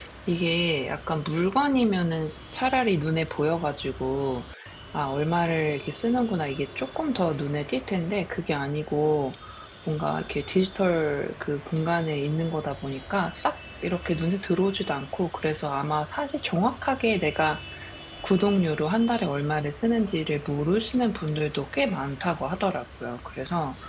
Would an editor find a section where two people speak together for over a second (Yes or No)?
No